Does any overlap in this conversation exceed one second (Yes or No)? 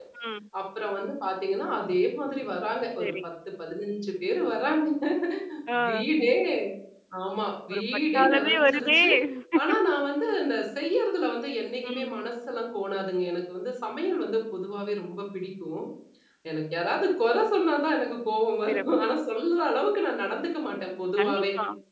Yes